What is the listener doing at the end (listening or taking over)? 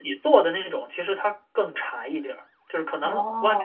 listening